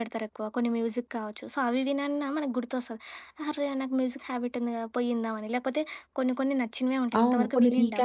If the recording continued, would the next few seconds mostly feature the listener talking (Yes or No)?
Yes